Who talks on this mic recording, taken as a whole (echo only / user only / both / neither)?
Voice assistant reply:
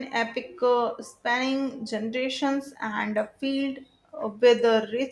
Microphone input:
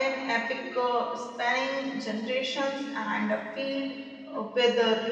echo only